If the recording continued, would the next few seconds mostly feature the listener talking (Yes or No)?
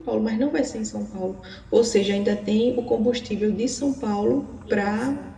No